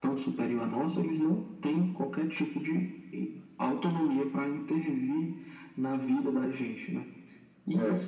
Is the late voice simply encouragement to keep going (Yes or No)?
Yes